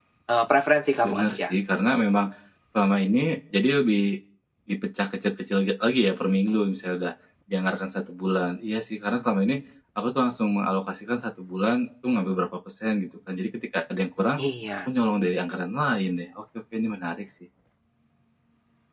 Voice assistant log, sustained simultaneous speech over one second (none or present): none